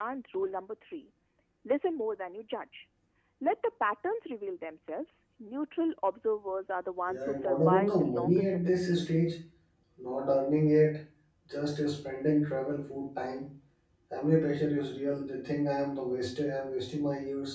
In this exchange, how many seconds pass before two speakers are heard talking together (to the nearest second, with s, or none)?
7 s